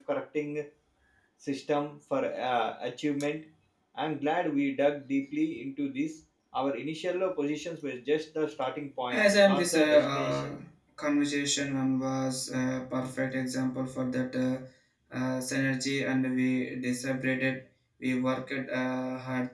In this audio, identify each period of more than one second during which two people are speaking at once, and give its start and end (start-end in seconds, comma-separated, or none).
9.1-10.6